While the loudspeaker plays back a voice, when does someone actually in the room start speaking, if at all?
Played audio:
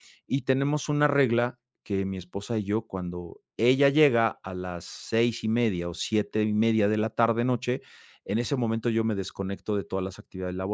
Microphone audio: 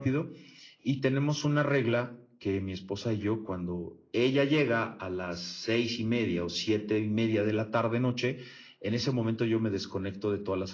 none

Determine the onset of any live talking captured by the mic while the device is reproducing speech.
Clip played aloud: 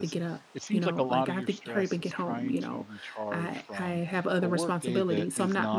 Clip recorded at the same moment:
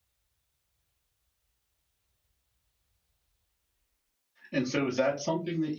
4.5 s

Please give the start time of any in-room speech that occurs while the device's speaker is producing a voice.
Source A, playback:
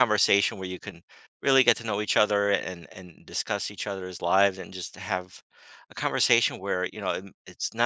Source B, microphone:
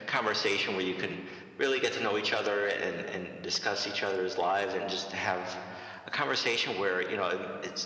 none

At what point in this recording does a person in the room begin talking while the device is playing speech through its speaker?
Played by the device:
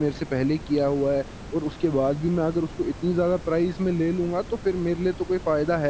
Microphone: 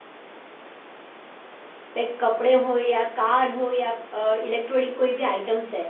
1.9 s

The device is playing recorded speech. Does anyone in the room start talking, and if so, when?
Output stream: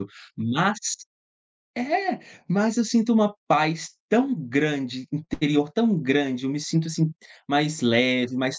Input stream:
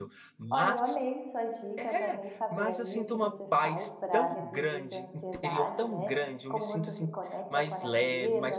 0.5 s

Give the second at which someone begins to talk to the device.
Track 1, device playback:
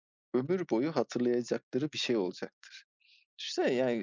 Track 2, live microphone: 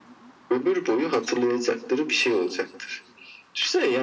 none

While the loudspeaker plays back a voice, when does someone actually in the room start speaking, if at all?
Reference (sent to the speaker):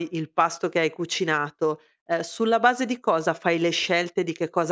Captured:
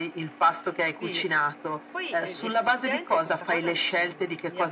1.0 s

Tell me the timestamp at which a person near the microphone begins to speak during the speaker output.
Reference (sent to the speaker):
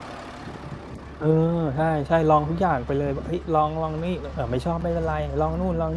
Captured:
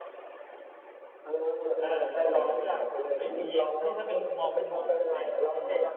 1.8 s

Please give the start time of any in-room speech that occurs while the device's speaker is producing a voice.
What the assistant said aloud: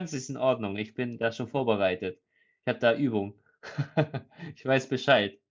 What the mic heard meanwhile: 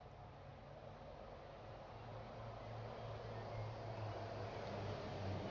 none

